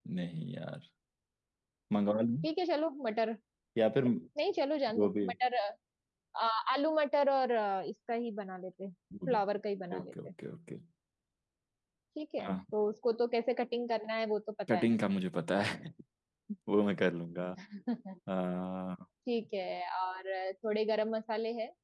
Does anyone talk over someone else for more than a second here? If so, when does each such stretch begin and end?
none

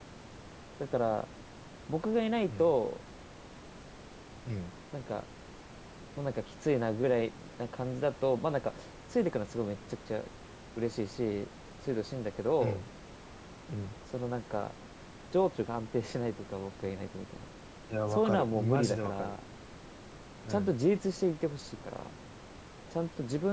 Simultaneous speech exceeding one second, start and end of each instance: 18.1-19.3

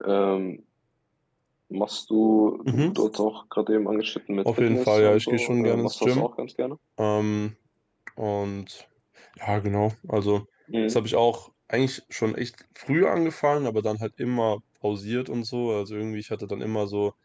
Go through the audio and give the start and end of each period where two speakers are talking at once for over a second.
4.5-6.3

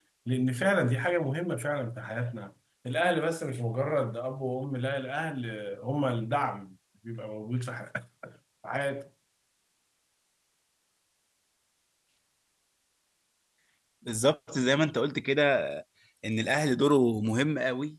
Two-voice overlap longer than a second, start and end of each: none

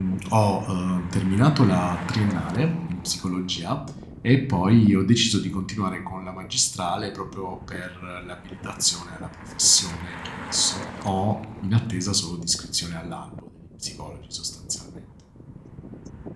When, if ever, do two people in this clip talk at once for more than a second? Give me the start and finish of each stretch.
none

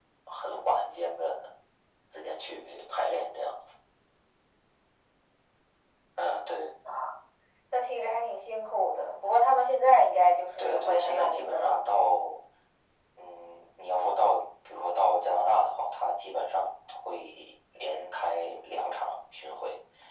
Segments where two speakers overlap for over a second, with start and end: 10.6-11.8

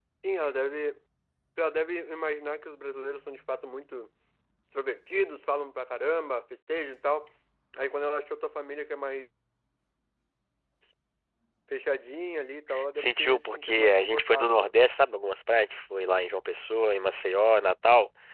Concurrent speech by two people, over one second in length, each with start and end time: 13.0-14.7

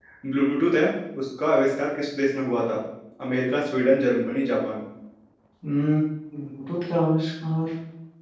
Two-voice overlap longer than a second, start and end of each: none

